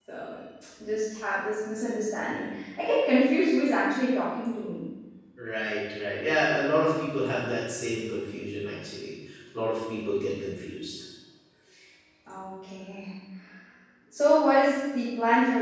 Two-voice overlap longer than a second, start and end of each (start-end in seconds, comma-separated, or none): none